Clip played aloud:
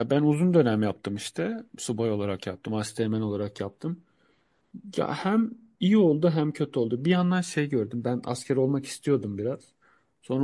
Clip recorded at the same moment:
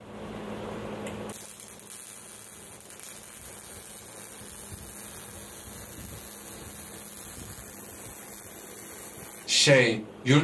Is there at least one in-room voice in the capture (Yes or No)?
Yes